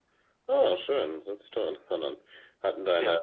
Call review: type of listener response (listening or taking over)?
listening